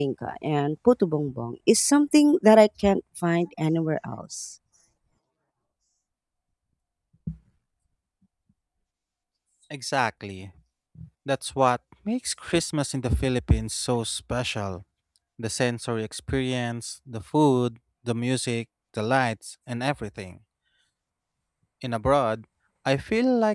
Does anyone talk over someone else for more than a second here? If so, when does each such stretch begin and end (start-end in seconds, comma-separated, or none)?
none